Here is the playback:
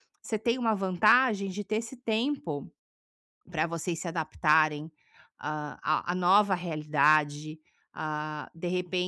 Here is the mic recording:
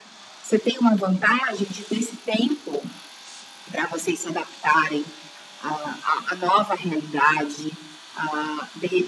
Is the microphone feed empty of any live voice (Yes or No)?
Yes